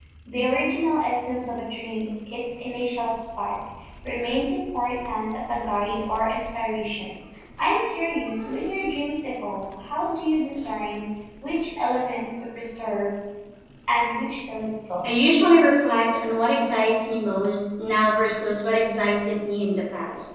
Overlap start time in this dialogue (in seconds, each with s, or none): none